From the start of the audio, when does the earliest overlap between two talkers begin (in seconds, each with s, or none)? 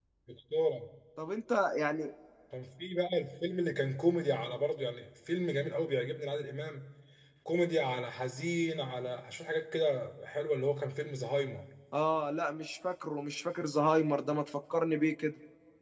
none